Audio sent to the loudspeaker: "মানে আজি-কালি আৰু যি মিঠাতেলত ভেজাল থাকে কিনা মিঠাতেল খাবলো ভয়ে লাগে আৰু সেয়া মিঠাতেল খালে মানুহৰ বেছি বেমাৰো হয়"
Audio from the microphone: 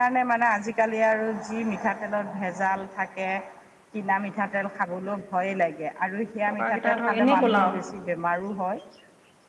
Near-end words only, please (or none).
টকা কেইটা ধৰক এনেই গলাও।